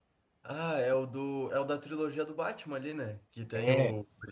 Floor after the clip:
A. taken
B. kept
B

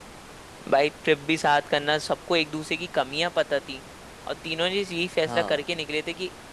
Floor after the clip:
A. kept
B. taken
A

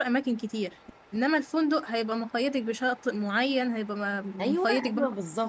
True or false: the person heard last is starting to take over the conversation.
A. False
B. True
B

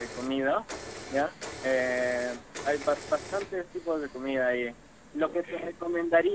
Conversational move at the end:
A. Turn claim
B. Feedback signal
B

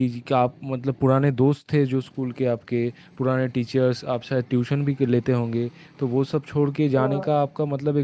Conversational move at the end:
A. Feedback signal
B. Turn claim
A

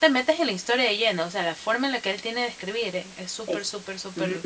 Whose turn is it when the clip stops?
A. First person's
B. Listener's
B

